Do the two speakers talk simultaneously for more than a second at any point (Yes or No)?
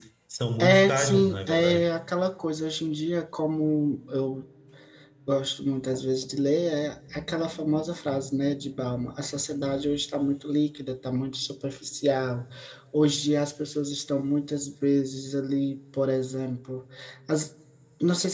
Yes